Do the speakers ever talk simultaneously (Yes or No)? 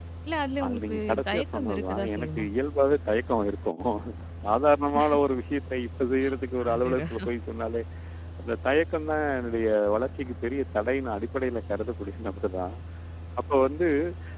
Yes